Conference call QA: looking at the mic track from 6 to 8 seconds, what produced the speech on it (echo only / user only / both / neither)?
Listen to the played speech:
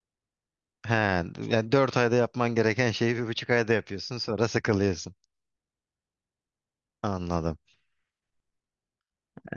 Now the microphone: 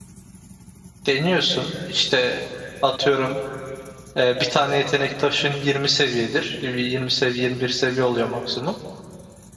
user only